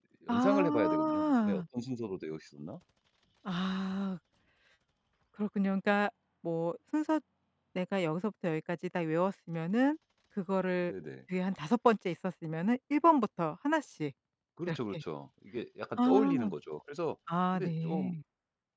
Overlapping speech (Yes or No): Yes